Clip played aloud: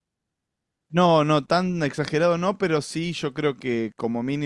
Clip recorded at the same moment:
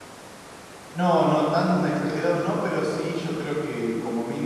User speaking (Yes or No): No